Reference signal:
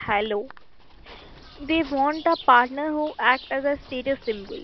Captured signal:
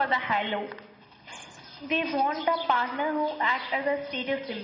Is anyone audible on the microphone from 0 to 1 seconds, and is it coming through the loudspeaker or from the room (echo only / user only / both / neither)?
echo only